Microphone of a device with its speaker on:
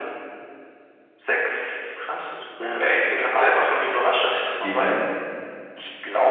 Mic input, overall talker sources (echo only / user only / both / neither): both